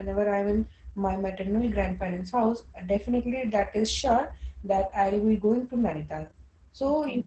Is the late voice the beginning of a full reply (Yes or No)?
No